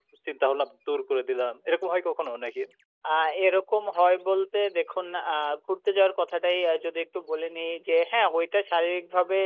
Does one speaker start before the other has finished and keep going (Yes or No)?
No